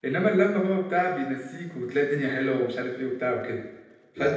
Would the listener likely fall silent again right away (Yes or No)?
Yes